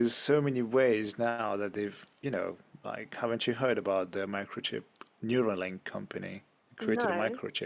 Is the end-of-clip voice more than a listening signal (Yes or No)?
No